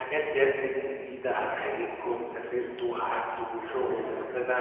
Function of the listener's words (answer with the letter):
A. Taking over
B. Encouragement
B